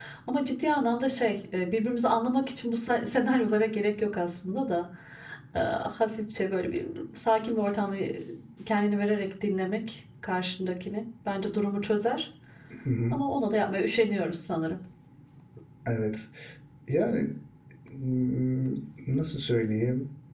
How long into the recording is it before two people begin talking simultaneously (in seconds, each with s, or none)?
none